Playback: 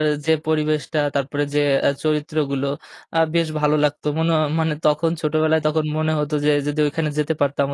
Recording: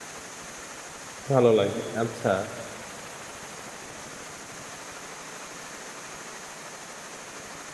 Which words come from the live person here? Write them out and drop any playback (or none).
ভালো লাগবে। আচ্ছা।